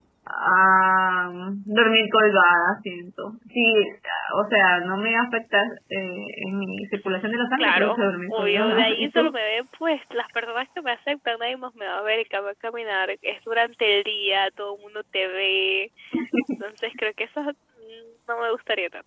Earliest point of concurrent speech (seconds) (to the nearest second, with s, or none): 8 s